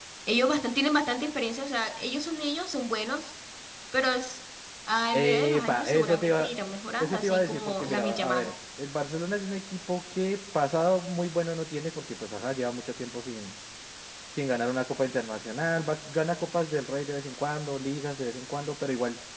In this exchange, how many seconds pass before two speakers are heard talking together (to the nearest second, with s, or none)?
5 s